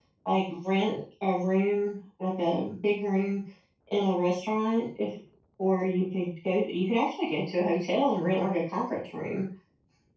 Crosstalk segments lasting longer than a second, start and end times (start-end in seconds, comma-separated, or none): none